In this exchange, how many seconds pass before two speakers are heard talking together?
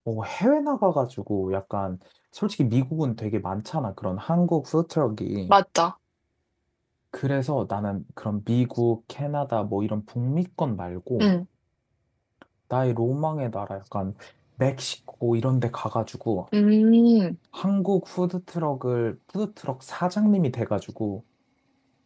none

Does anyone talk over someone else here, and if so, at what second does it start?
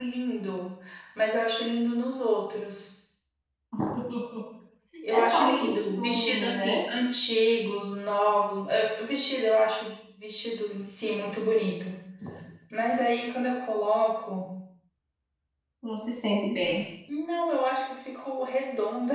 5.1 s

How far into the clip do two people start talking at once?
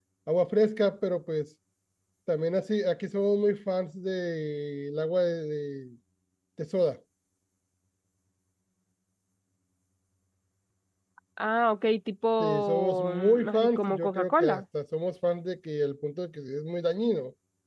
12.4 s

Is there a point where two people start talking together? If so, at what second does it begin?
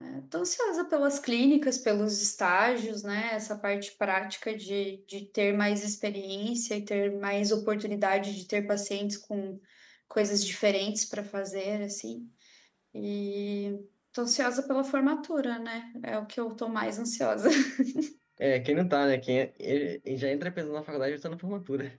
none

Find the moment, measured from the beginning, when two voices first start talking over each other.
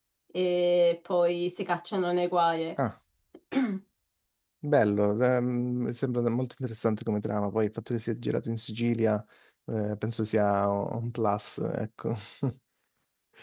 none

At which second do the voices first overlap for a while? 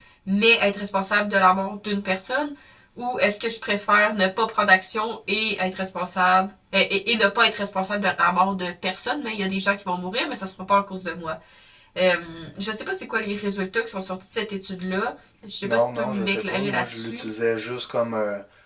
15.6 s

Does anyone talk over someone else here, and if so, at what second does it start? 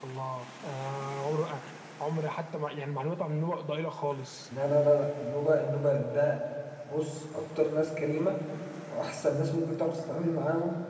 none

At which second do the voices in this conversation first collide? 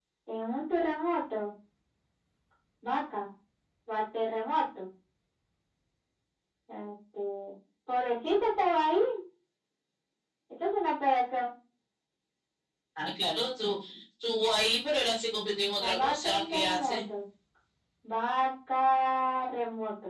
15.8 s

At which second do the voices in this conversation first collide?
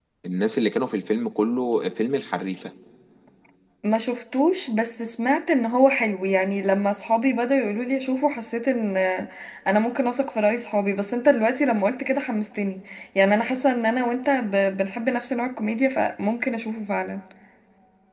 none

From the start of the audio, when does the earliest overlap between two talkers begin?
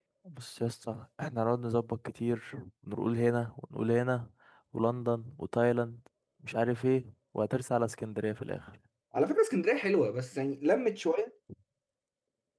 none

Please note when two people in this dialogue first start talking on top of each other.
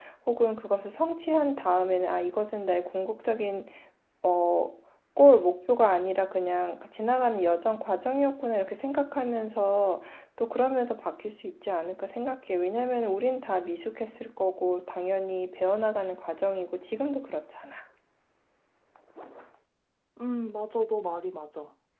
none

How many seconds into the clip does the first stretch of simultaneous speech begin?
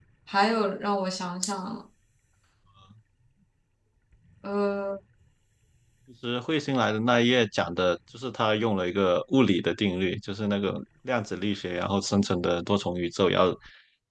none

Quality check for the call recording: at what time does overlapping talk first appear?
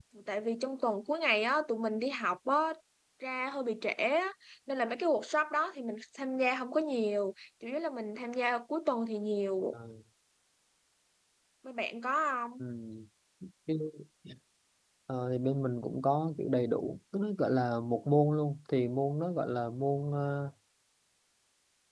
none

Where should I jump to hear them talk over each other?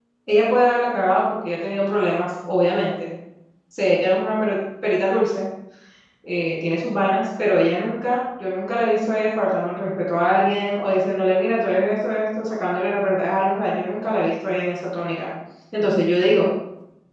none

